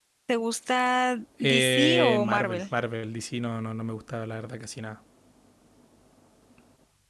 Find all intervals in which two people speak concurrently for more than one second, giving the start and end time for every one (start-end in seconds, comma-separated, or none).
1.4-2.6